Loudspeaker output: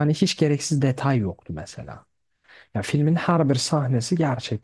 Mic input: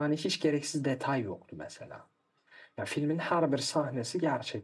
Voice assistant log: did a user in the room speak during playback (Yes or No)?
No